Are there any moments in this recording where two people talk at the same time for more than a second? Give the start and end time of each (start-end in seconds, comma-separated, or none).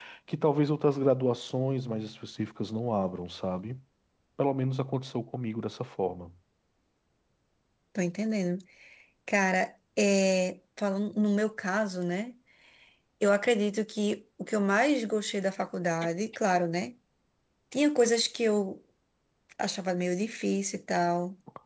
none